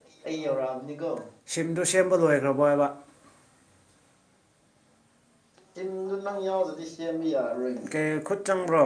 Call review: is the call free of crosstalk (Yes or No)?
Yes